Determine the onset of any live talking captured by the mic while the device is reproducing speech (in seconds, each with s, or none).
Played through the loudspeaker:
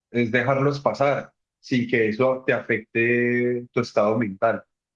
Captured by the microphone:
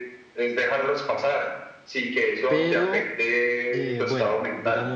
2.5 s